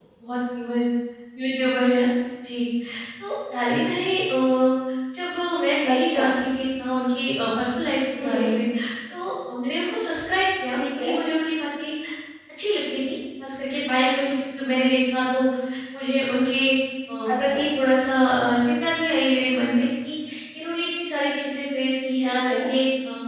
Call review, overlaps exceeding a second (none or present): none